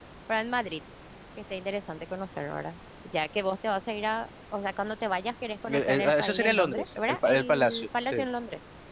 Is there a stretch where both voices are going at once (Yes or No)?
Yes